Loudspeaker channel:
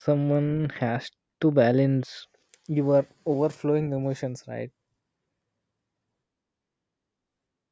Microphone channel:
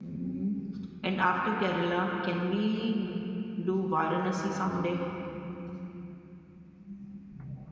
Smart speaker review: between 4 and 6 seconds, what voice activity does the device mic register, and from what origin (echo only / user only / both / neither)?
user only